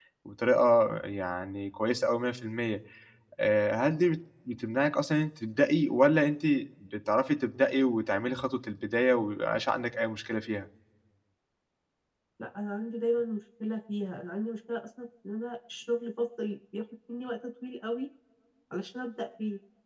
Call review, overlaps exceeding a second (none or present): none